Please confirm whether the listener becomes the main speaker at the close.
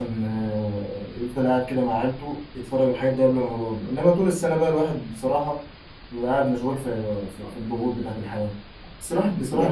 No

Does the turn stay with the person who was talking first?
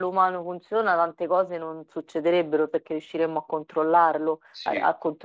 Yes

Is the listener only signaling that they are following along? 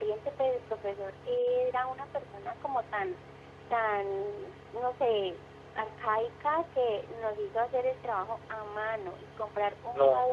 Yes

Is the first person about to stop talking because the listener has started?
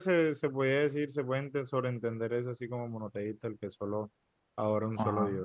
Yes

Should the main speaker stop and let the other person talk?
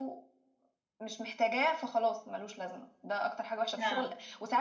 No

